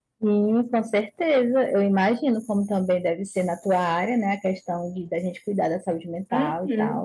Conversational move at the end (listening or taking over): taking over